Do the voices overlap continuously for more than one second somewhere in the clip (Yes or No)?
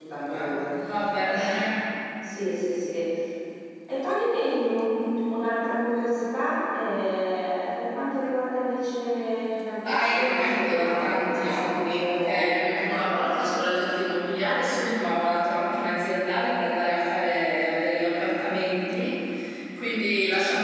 Yes